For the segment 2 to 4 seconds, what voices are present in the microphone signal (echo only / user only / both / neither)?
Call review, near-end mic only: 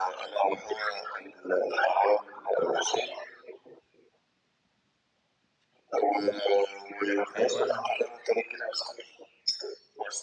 echo only